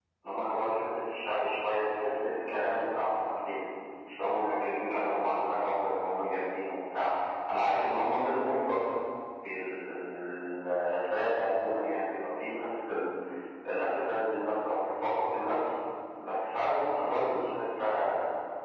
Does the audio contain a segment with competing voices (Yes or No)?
No